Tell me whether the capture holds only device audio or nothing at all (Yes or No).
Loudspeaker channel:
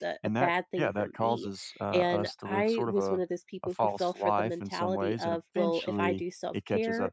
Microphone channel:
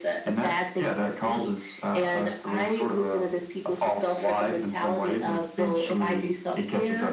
Yes